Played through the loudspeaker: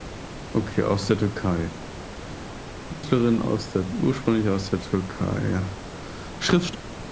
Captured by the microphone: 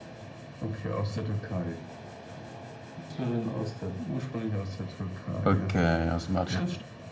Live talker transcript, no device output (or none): Okay, aus dem Atelier.